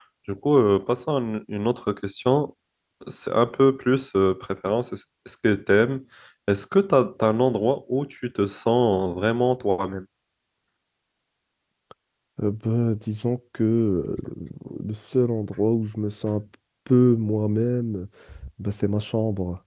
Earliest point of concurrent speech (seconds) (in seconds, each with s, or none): none